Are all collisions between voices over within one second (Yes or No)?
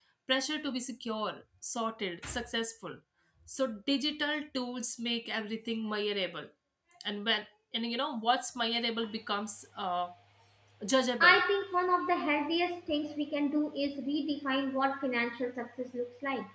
Yes